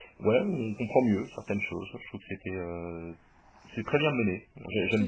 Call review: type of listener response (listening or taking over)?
taking over